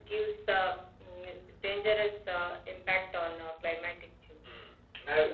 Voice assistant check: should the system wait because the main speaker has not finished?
No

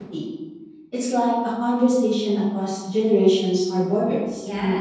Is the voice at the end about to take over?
Yes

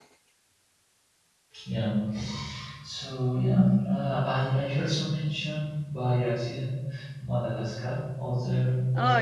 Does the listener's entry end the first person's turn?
No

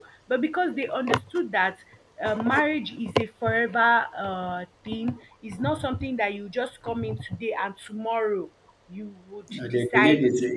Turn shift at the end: Yes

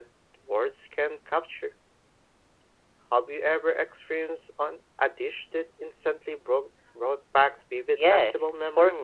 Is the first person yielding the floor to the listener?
Yes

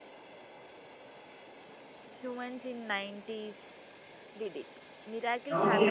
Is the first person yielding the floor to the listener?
Yes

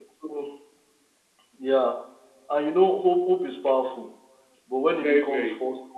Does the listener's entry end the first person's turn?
No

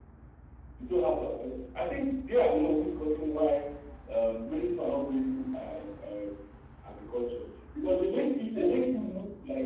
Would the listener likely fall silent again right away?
Yes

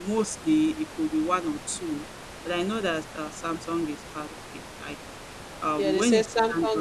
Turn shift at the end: Yes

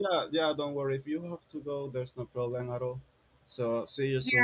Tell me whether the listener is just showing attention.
No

